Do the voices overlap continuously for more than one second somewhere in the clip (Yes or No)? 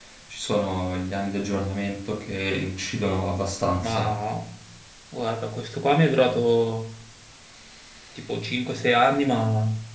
No